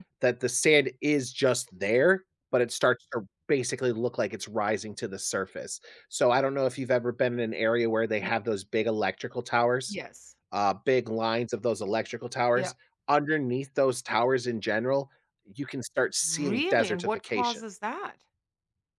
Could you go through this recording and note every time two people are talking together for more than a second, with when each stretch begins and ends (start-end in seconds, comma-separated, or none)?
16.3-17.6